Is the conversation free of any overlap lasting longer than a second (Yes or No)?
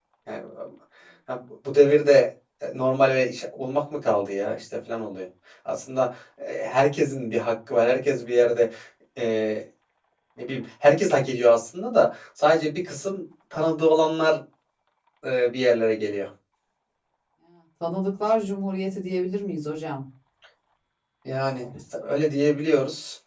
Yes